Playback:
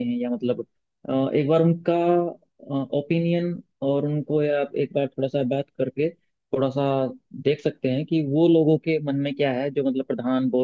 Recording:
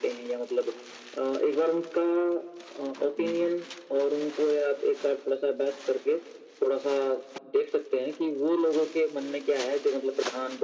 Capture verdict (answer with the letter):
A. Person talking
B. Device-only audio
A